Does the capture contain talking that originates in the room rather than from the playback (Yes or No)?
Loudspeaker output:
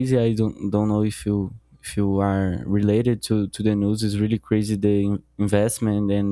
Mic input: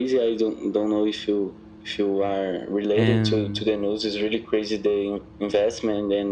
Yes